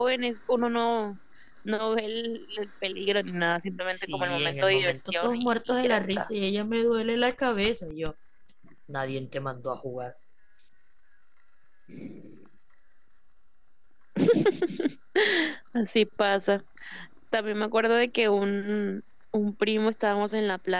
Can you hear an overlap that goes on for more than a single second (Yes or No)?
Yes